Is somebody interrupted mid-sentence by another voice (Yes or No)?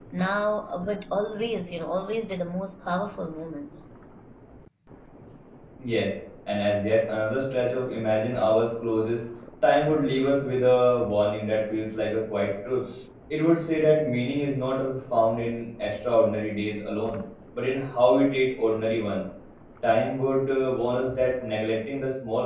No